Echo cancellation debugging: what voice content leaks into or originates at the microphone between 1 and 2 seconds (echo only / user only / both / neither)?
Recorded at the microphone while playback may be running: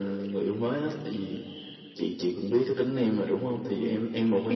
echo only